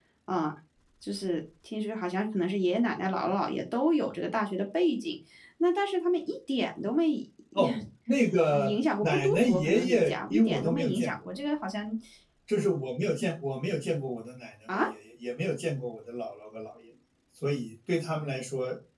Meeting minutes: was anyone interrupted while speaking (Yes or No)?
Yes